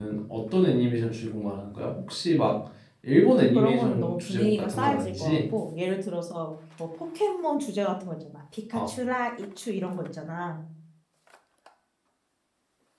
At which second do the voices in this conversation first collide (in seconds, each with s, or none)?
3.5 s